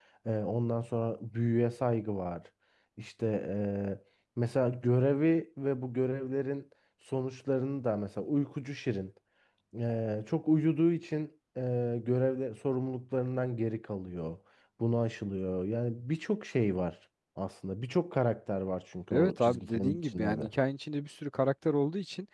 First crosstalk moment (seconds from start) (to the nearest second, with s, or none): 19 s